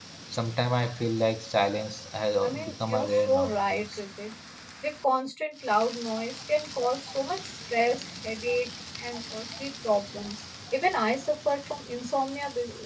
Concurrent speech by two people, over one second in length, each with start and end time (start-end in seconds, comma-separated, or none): 2.4-4.0